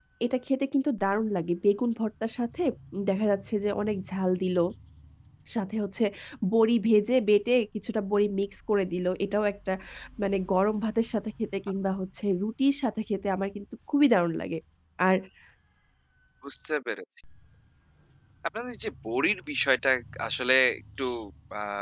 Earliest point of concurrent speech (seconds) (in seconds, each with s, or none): none